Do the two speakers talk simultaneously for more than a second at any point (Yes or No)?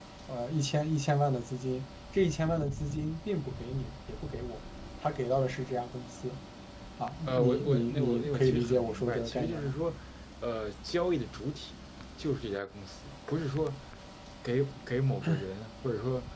Yes